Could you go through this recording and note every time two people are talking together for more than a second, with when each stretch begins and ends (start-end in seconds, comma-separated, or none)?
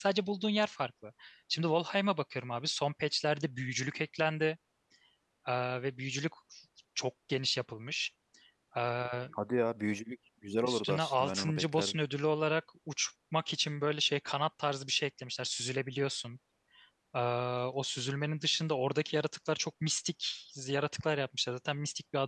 10.6-12.0